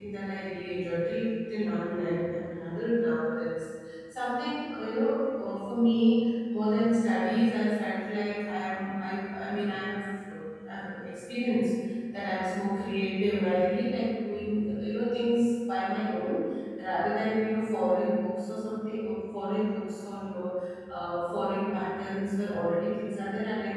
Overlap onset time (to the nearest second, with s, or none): none